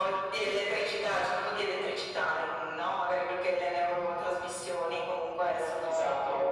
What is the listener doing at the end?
listening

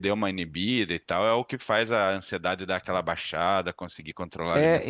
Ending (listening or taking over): taking over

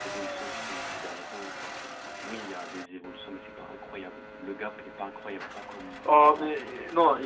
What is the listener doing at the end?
taking over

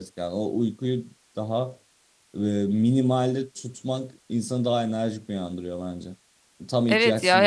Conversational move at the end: taking over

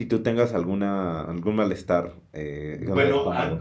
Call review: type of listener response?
taking over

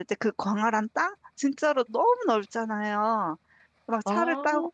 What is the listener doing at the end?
listening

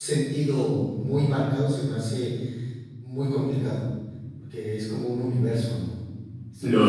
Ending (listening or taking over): listening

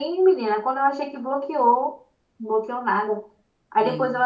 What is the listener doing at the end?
listening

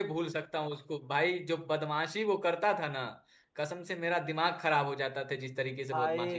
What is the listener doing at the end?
taking over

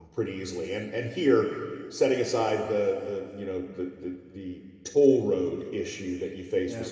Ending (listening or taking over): listening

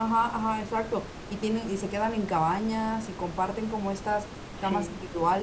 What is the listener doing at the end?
listening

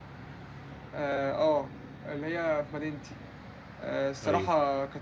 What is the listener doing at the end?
listening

